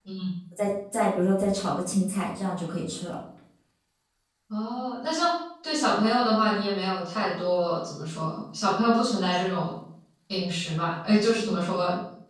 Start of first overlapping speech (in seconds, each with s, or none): none